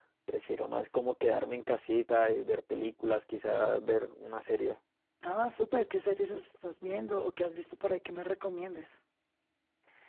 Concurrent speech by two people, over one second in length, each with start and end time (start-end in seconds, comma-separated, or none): none